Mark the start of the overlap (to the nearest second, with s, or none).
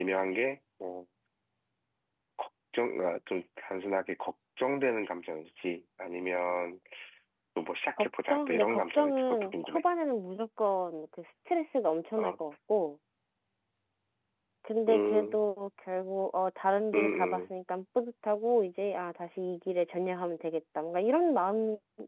8 s